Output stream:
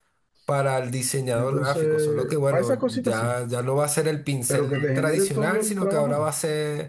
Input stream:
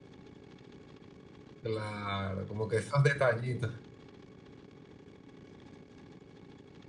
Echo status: none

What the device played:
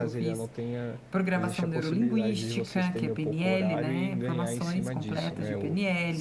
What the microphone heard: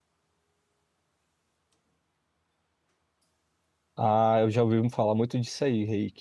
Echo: none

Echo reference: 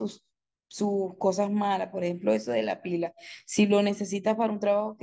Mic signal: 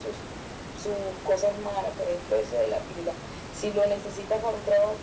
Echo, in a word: present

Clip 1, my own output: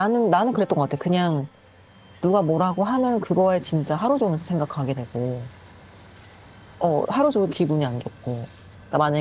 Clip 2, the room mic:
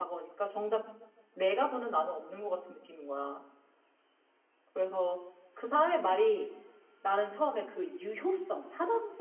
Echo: none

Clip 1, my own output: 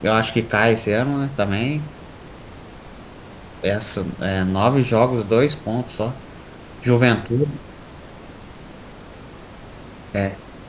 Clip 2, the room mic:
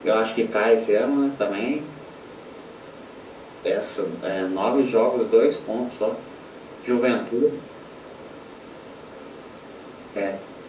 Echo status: present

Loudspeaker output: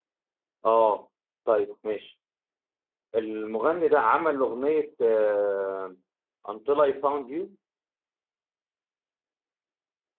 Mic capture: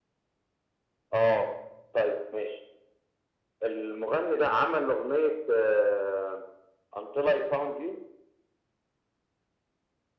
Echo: present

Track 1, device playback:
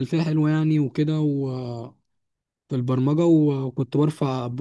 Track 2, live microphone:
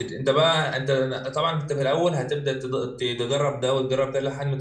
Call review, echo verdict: none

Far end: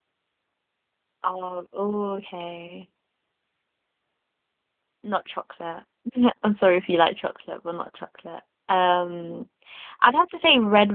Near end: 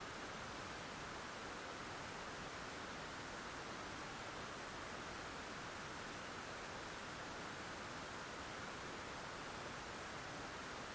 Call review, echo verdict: none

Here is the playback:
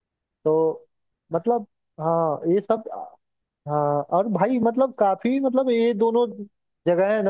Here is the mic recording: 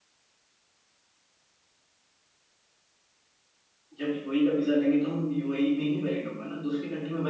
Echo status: none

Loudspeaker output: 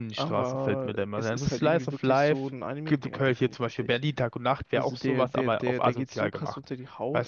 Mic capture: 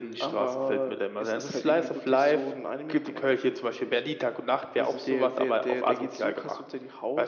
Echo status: present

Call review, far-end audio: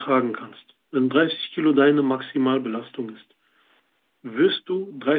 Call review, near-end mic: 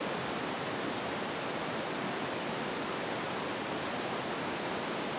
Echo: none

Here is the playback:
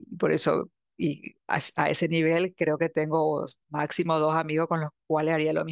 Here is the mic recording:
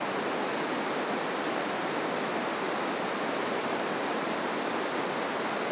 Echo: none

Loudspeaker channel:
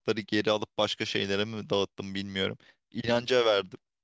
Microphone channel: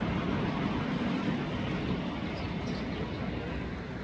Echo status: none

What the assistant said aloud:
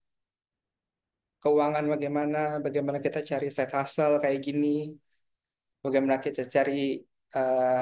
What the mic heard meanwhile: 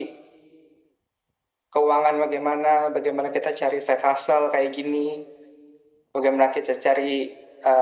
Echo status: present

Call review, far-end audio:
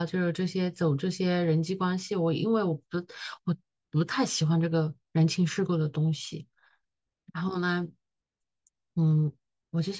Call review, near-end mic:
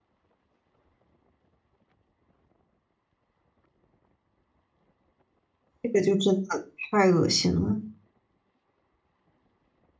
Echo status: none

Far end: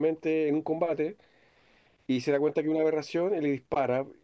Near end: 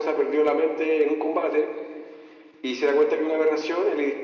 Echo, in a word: present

